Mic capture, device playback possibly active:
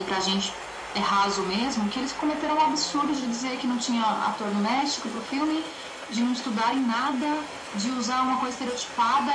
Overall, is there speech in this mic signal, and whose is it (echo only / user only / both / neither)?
echo only